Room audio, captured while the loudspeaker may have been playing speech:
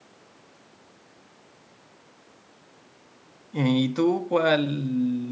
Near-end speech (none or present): present